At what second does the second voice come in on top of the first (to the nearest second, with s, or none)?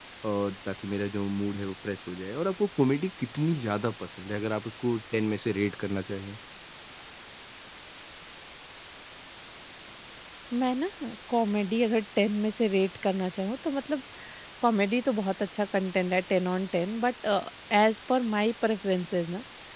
none